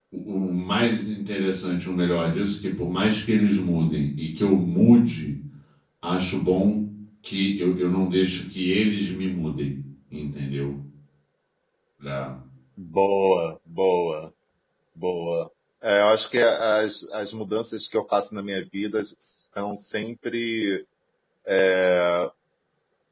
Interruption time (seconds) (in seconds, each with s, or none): none